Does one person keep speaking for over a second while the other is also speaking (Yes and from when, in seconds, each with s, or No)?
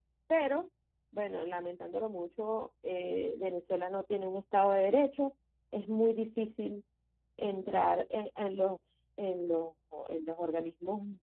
No